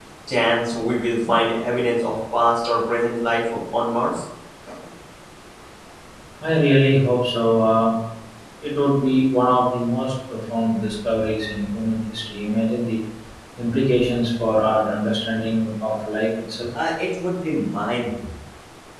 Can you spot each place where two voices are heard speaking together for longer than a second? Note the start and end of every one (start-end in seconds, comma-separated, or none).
none